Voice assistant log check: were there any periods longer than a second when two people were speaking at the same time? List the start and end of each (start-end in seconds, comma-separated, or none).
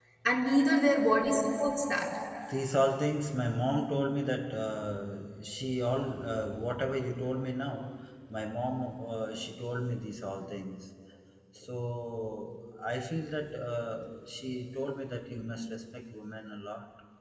none